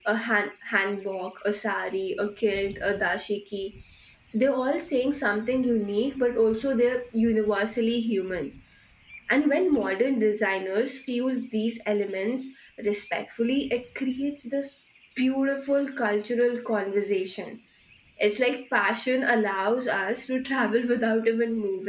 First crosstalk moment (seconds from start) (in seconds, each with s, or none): none